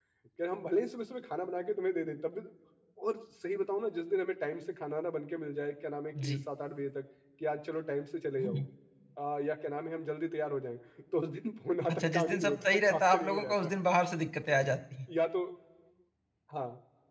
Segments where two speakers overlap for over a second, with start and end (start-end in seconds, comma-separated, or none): 11.9-13.7